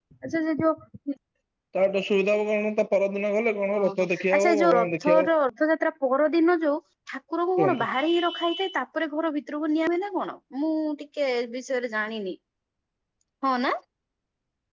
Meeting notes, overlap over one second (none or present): present